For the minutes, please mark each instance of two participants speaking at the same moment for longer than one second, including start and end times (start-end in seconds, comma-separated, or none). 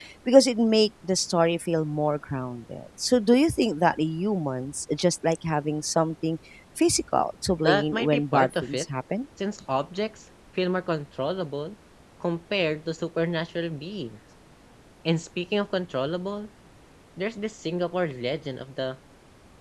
7.6-8.8